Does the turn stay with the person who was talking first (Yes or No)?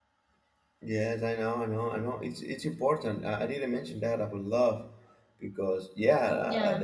Yes